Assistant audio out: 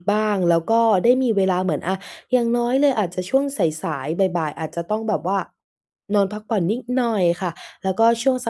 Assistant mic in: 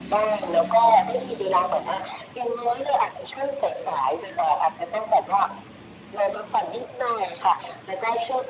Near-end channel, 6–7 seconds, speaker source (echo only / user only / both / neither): echo only